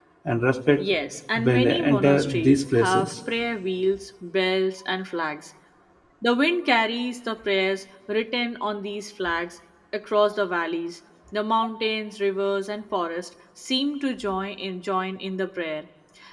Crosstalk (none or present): present